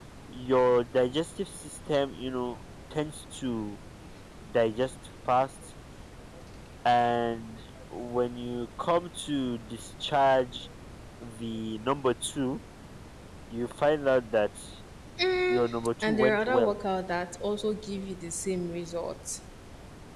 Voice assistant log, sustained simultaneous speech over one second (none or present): present